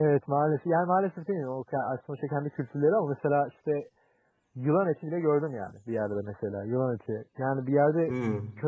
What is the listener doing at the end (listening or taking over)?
listening